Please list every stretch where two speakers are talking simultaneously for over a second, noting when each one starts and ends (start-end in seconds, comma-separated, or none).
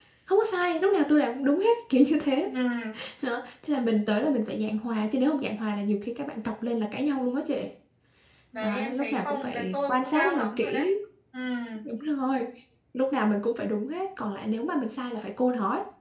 8.6-10.8